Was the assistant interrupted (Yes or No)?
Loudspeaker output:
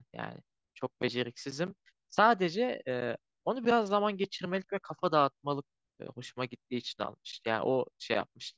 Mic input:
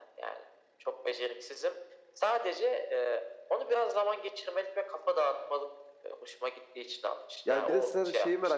Yes